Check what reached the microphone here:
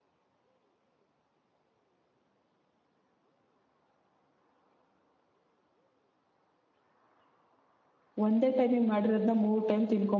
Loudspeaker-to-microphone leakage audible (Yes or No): No